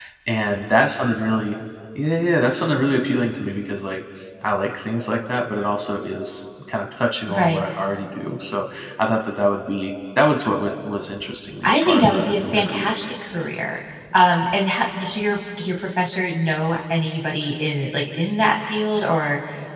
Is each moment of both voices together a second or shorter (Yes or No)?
No